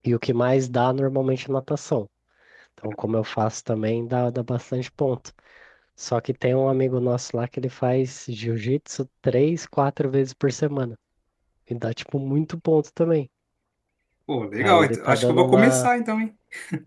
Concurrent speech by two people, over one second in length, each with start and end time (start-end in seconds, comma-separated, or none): 14.6-15.9